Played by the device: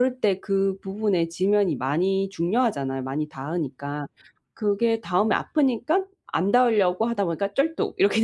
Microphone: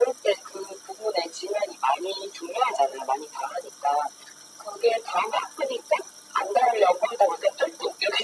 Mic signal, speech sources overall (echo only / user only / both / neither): echo only